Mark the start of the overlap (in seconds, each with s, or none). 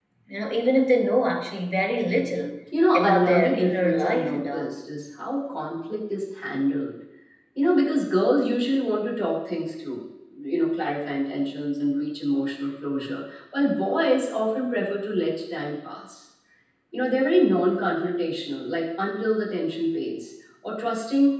2.9 s